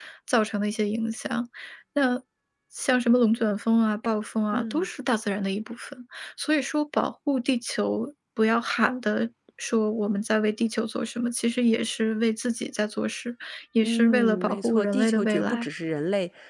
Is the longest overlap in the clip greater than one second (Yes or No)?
Yes